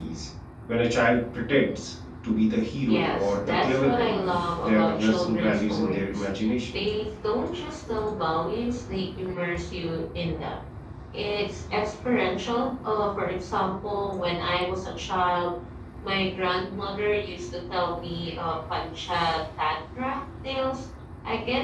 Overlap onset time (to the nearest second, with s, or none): 3 s